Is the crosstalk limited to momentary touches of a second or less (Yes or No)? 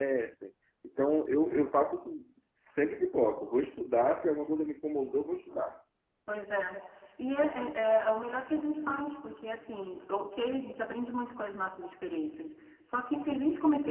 Yes